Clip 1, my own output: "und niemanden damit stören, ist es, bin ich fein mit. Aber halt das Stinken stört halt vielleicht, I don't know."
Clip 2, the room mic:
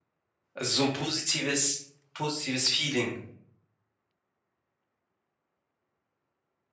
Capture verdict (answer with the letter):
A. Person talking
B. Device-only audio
A